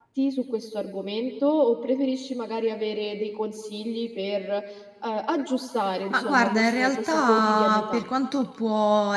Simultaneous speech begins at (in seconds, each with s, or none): 6.1 s